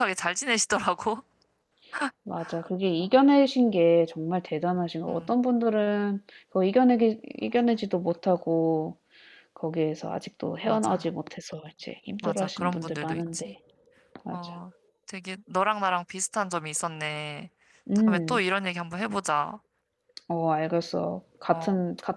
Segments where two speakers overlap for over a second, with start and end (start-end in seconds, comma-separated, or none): 12.2-13.5